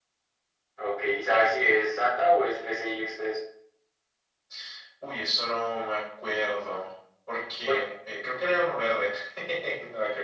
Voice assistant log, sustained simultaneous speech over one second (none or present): none